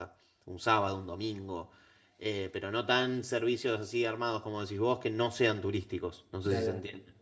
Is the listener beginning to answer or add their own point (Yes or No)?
Yes